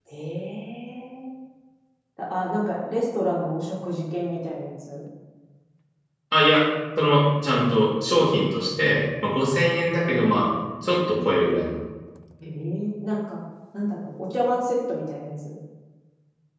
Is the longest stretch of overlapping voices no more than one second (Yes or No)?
Yes